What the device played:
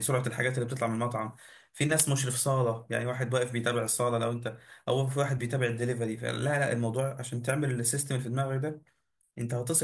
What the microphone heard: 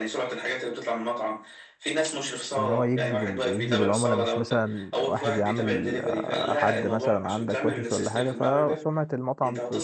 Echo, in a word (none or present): present